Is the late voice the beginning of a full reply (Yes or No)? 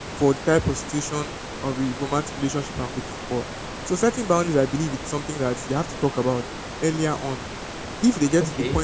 No